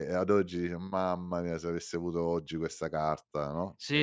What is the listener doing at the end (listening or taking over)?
taking over